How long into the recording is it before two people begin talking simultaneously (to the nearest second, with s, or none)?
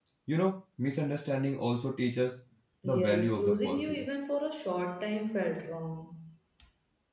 3 s